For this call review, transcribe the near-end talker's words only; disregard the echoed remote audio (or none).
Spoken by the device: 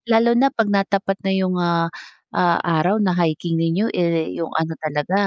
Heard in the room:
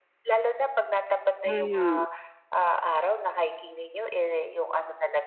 hmm.